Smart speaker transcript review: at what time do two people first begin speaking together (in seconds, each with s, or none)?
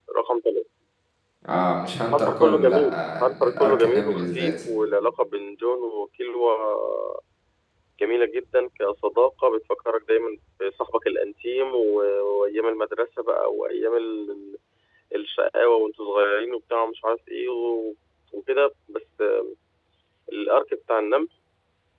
2.1 s